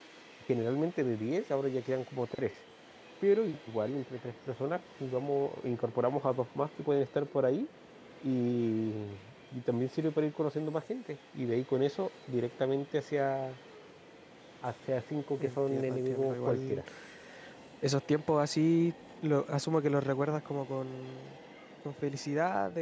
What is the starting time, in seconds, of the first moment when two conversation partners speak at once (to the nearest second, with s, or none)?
15 s